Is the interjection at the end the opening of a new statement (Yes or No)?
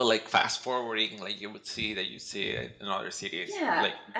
Yes